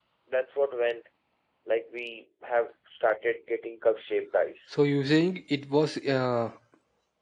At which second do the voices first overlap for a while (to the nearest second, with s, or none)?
none